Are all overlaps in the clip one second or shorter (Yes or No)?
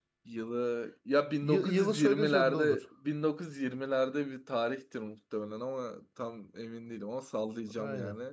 No